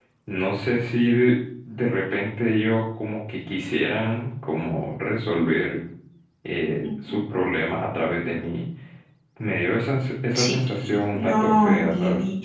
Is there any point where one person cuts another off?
Yes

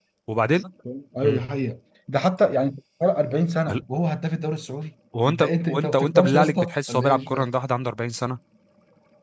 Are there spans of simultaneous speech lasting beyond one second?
Yes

